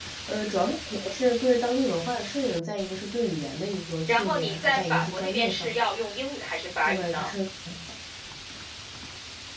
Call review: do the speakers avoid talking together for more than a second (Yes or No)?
No